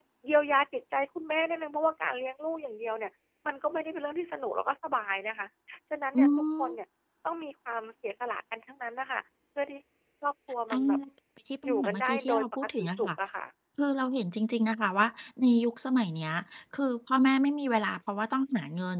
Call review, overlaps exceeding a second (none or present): present